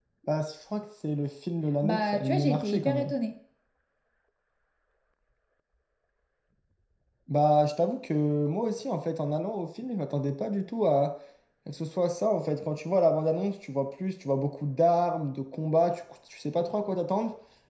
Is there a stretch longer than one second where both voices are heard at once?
Yes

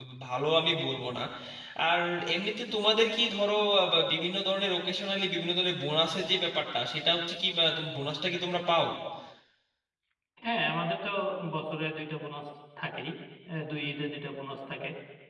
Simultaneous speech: No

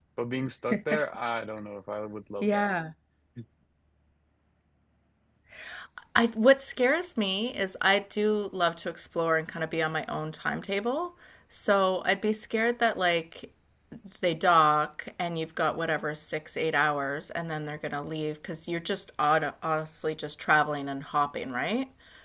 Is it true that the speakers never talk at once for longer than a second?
Yes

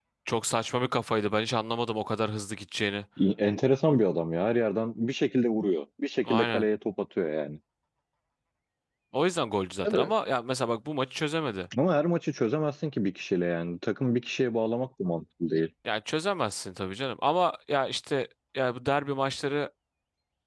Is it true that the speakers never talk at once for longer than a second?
Yes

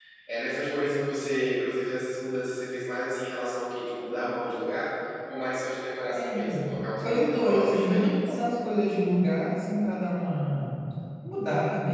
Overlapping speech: Yes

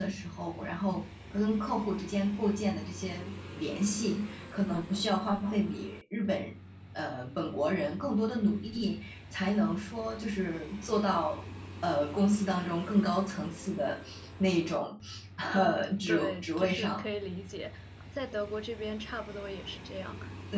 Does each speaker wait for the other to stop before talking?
No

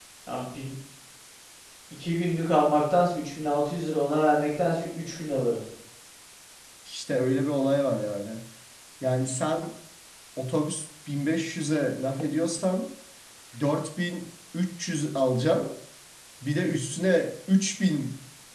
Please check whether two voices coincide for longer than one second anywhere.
No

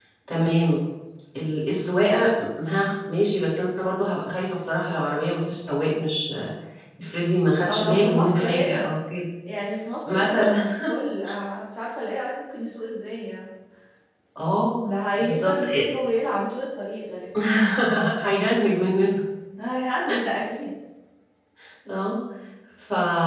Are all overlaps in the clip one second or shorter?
No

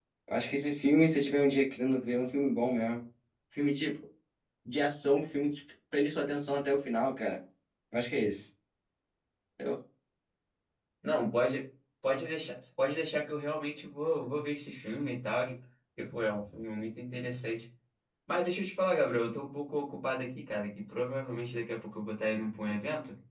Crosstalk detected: No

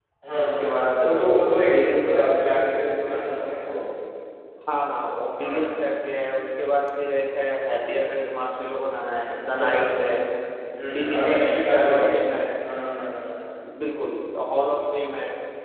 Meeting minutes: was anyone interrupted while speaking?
Yes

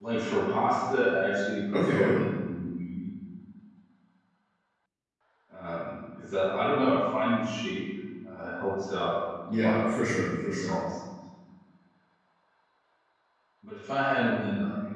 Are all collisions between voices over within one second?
No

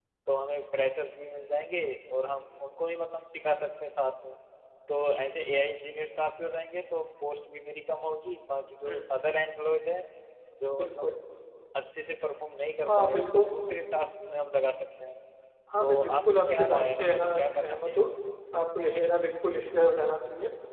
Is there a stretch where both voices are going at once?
Yes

